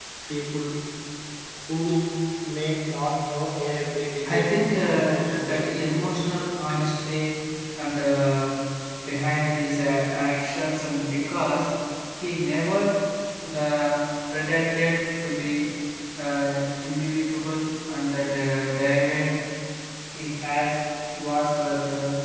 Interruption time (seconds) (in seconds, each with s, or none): 4.2 s